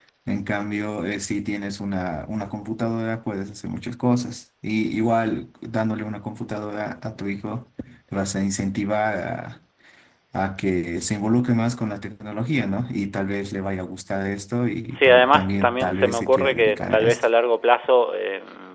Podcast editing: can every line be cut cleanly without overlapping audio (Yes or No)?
No